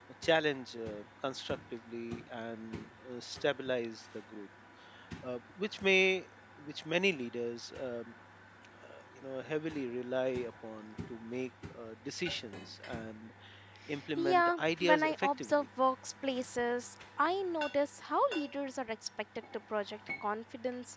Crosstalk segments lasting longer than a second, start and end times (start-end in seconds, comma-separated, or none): 14.2-15.5